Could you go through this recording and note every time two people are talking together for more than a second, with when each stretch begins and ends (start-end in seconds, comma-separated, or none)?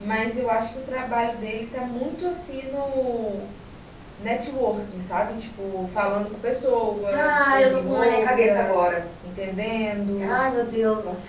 7.1-8.9